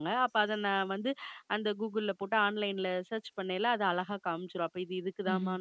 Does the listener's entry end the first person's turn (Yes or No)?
No